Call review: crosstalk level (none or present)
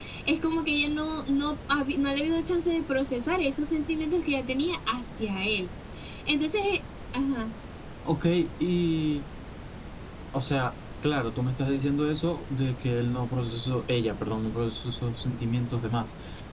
none